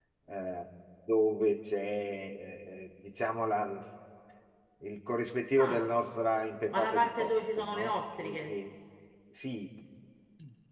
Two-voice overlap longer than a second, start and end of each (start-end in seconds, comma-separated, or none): 6.7-8.5